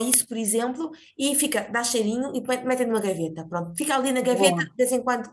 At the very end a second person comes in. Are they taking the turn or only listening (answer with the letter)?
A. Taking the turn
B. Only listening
B